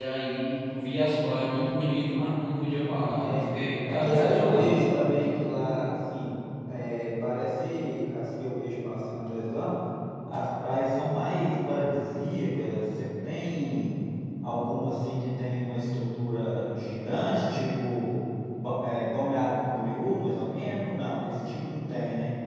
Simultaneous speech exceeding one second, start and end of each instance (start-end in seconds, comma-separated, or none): 2.9-4.8